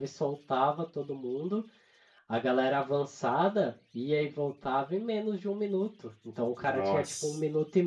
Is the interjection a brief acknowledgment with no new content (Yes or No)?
Yes